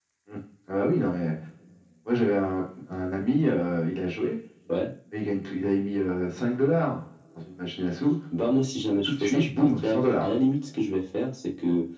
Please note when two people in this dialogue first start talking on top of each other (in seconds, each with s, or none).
9.1 s